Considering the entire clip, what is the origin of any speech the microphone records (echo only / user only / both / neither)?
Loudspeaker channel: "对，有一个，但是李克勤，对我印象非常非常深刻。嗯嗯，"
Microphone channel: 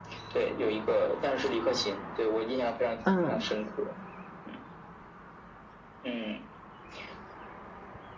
both